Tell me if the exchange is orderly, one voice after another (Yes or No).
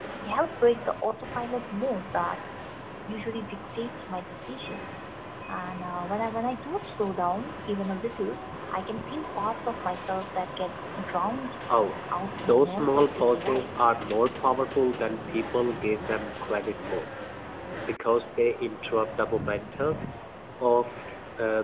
No